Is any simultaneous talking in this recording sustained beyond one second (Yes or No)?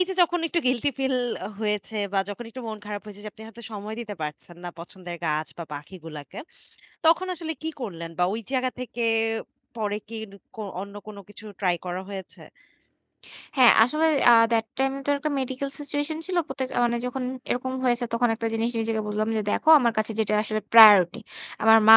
No